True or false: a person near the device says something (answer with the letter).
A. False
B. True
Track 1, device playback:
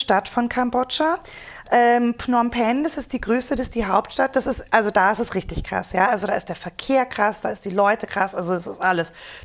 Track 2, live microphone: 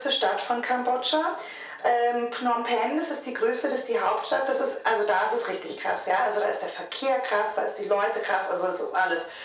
A